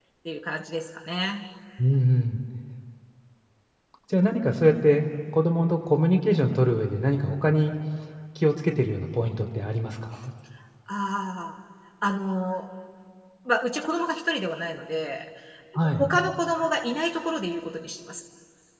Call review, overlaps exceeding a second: none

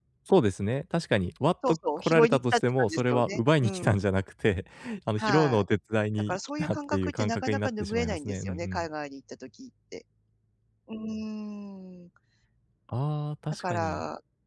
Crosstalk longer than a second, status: present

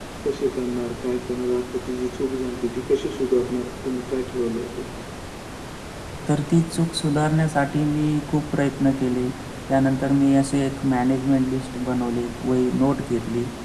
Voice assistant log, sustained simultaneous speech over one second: none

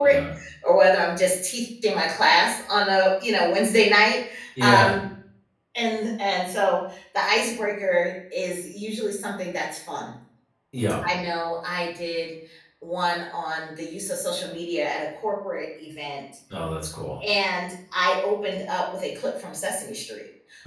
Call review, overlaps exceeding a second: none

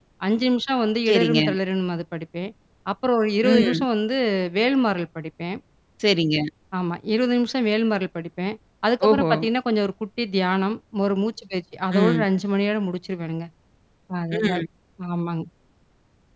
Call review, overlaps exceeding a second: none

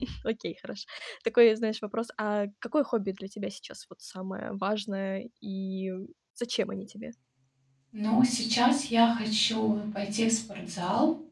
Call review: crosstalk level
none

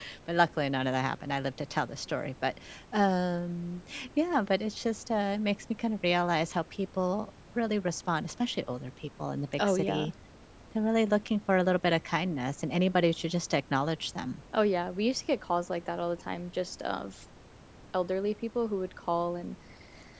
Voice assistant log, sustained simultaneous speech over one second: none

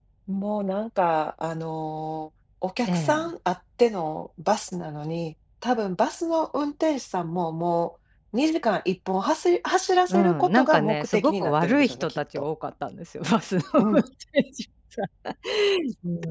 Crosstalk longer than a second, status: present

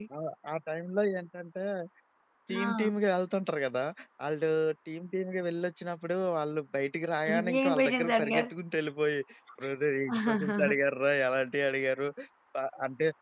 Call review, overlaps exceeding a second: present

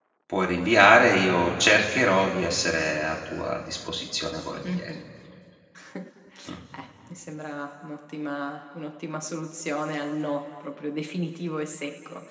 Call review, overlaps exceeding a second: none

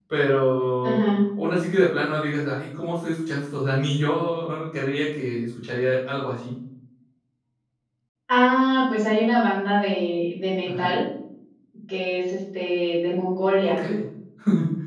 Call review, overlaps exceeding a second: none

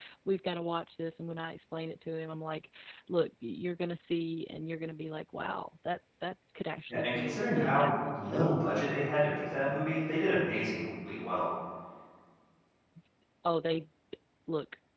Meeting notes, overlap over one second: present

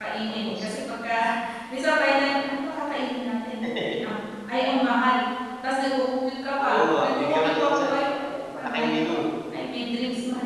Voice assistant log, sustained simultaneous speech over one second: present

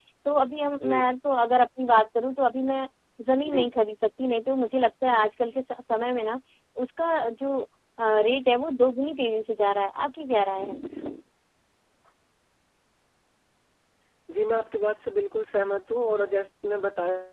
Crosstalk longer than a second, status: none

